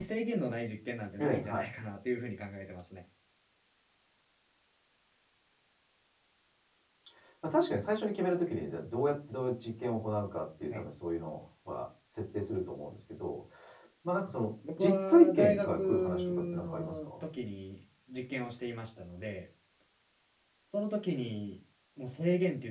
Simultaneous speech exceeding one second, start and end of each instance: 14.8-17.2

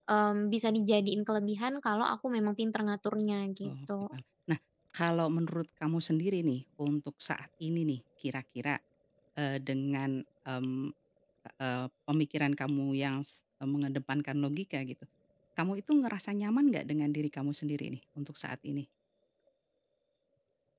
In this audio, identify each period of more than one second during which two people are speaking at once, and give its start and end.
none

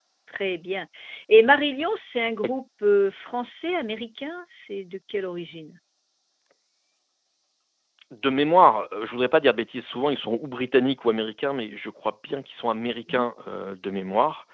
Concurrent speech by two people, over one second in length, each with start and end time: none

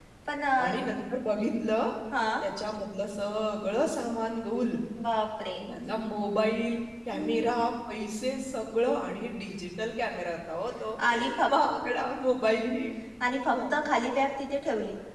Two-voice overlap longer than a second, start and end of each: none

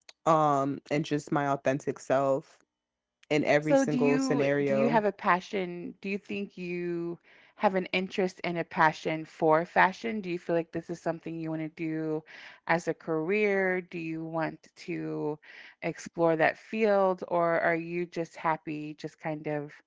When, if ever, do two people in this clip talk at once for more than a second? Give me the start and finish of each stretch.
3.7-5.0

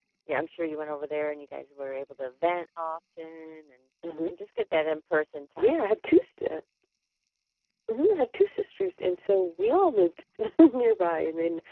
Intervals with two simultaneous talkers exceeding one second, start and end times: none

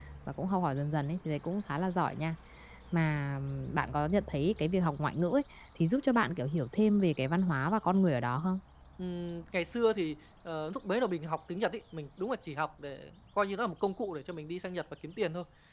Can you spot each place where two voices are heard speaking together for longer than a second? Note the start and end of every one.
none

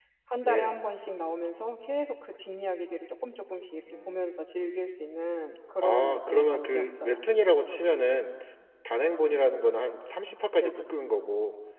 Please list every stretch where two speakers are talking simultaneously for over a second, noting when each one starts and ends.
5.8-7.2

